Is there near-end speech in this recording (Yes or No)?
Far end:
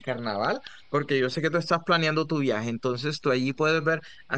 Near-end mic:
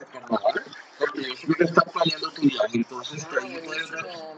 Yes